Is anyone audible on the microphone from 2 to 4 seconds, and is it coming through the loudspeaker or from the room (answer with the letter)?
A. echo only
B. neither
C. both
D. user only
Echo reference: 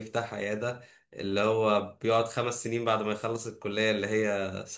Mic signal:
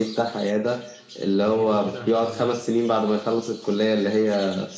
C